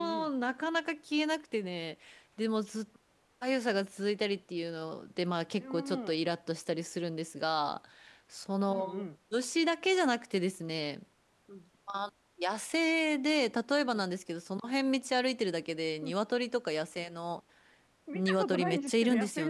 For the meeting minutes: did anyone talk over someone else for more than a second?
Yes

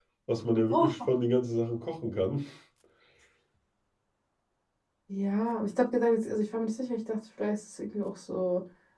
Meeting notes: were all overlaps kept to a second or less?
Yes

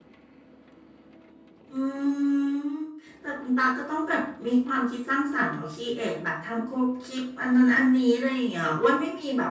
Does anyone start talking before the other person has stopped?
No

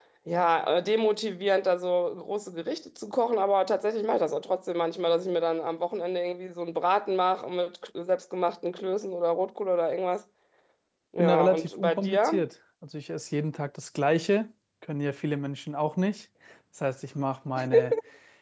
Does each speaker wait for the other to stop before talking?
No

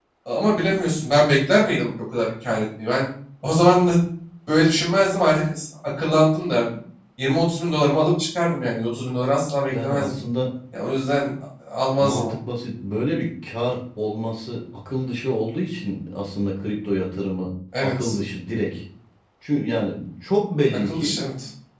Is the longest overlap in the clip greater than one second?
No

